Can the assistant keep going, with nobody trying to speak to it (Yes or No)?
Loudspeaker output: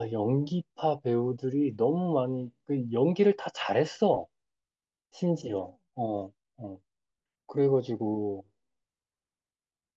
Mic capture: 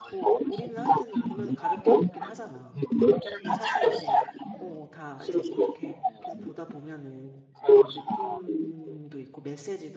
No